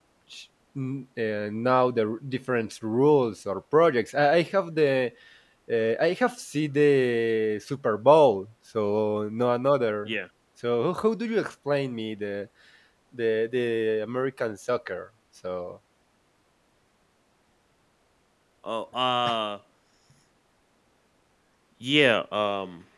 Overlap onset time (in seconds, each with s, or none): none